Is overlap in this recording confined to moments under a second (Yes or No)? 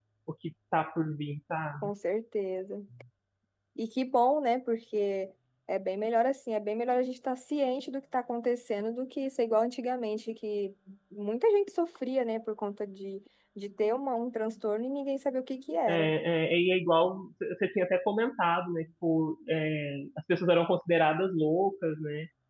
Yes